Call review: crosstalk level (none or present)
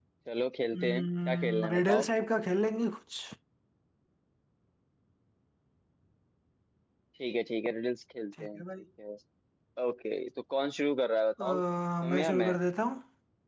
present